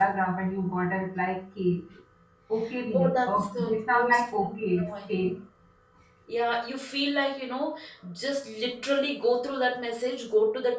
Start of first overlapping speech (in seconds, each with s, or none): 2.9 s